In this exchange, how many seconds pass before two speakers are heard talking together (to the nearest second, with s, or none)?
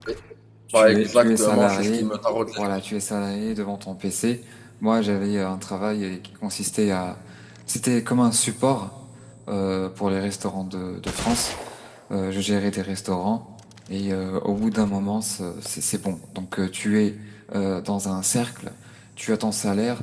1 s